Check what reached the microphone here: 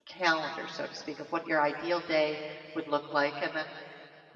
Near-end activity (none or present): present